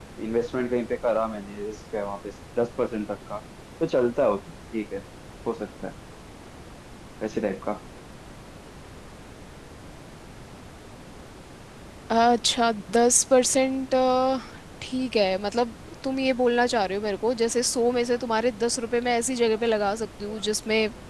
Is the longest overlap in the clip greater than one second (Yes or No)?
No